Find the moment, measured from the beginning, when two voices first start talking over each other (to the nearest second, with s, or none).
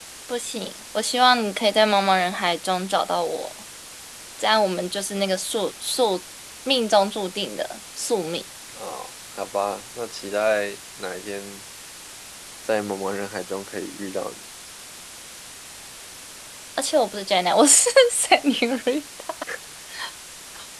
none